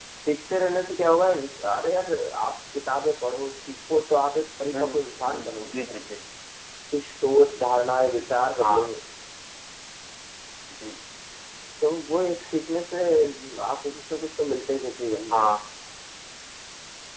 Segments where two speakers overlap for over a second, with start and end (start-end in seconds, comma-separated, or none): 4.7-6.0